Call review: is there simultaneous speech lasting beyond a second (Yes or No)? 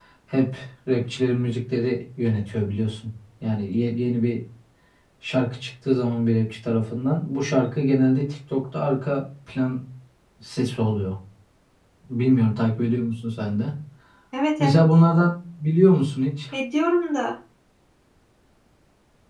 No